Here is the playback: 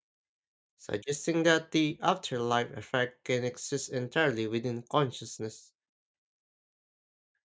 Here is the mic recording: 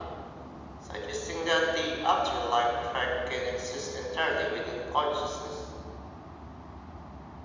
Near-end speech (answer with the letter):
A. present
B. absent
B